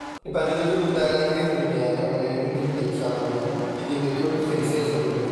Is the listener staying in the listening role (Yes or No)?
Yes